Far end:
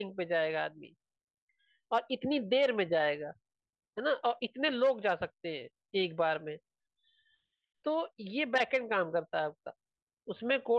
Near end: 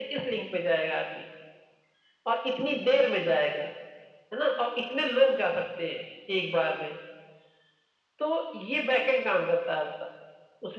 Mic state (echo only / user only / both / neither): echo only